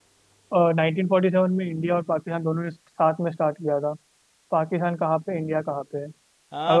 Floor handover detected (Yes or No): Yes